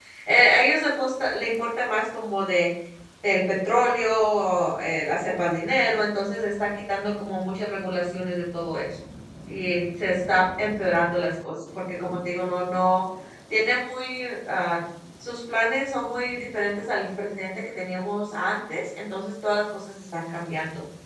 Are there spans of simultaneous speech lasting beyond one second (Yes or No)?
No